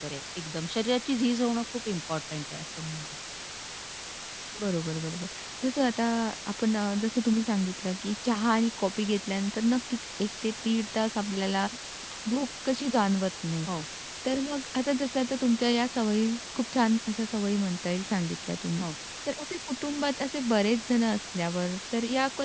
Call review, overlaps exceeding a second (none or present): none